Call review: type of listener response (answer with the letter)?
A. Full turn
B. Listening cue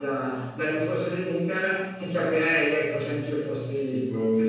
A